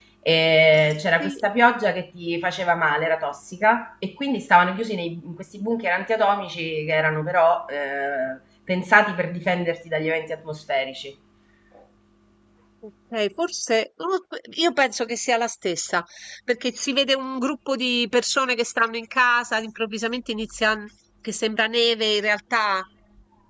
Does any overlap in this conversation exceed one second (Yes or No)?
No